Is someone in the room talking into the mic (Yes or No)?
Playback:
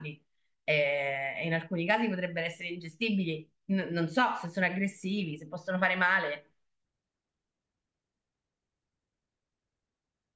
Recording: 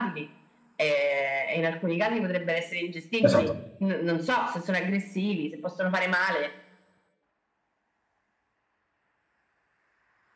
Yes